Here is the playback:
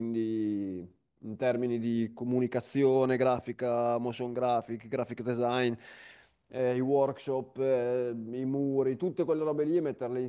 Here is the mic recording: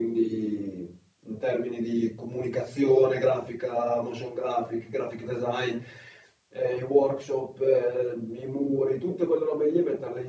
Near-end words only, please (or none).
none